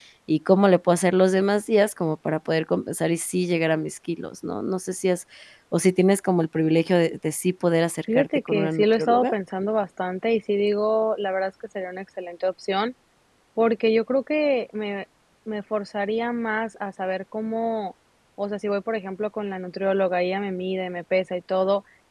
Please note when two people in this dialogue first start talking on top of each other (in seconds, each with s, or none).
8.1 s